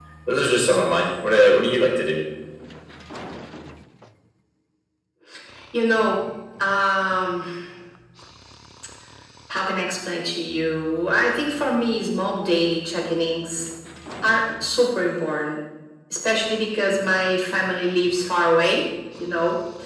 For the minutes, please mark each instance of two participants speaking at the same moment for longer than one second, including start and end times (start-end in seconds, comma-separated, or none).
none